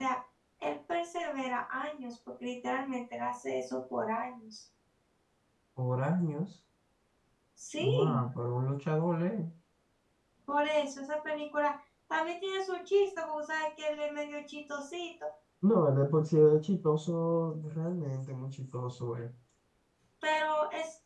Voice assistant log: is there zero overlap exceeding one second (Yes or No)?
Yes